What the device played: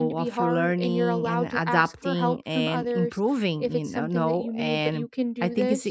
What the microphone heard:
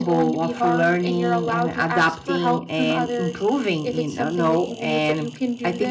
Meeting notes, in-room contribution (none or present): none